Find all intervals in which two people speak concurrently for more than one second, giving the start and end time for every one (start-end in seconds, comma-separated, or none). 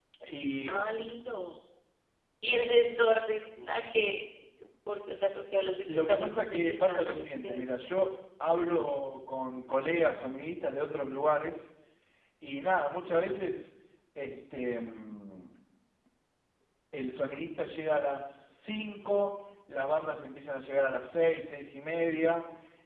5.9-7.7